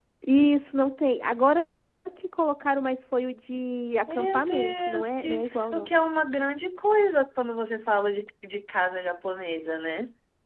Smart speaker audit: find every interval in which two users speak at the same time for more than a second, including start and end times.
4.1-5.9

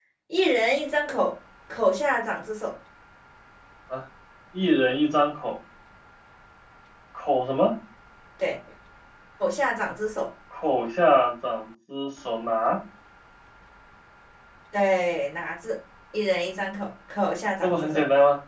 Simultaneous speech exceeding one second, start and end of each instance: none

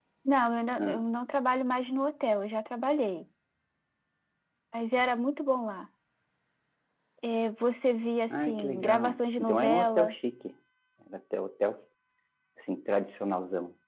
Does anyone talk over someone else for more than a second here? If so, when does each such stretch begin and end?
8.3-10.1

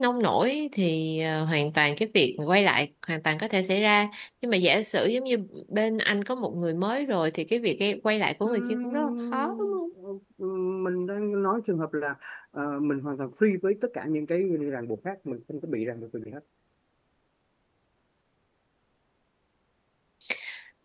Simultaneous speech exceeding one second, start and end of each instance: 8.4-9.8

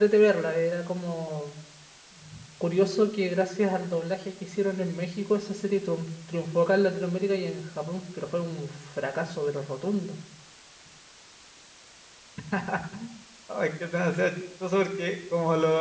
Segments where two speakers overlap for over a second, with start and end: none

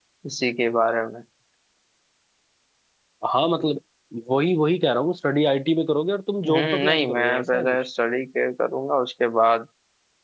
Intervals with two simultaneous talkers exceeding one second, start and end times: 6.5-7.8

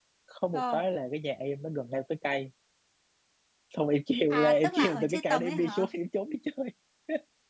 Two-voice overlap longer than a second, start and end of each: 4.3-5.9

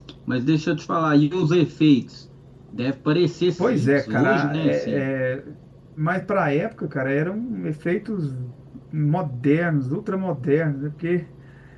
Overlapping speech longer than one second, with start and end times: 3.6-5.0

